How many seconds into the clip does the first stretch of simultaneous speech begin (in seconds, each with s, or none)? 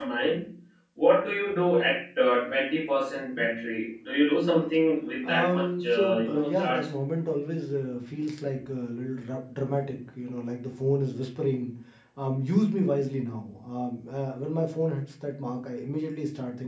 5.2 s